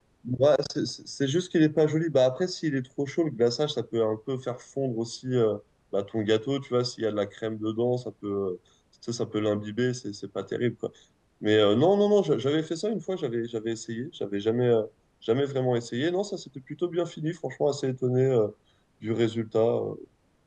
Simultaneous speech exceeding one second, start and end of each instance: none

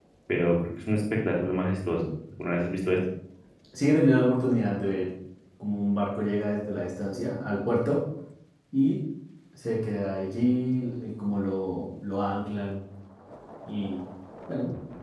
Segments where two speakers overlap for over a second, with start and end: none

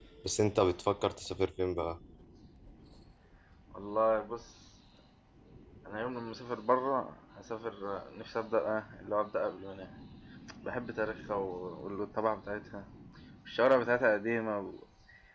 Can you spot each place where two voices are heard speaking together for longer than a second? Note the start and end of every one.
none

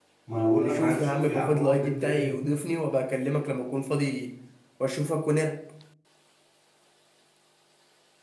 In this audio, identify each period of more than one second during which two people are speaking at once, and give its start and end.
0.6-2.4

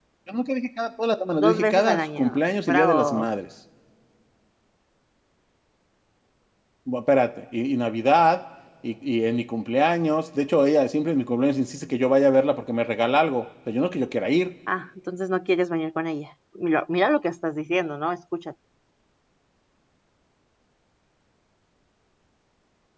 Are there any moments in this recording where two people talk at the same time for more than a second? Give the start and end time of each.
1.4-3.3

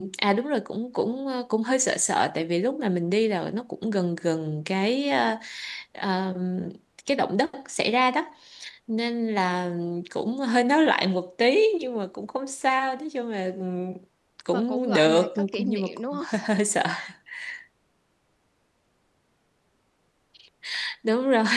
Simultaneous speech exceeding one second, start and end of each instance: 14.5-16.4

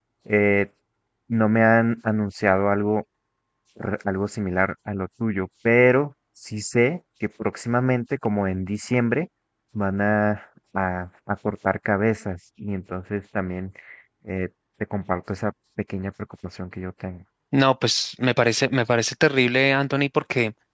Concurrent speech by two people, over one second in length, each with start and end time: none

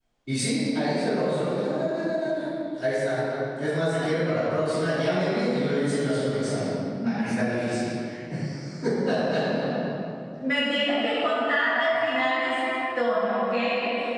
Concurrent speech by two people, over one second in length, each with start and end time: none

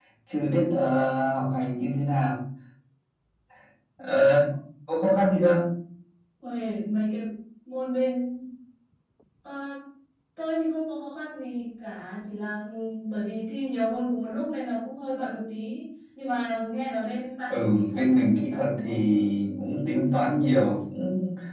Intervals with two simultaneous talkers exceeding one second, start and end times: 17.5-19.0

